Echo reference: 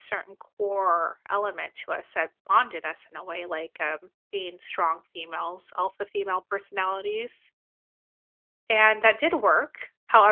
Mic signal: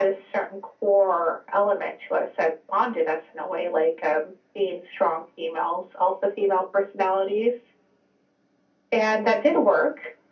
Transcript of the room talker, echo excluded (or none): none